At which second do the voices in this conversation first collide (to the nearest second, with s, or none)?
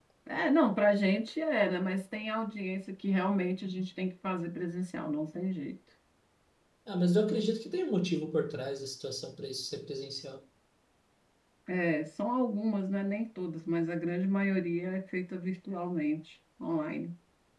none